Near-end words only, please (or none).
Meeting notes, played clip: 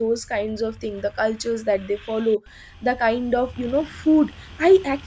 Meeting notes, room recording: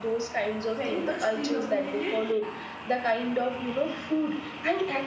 very much predominated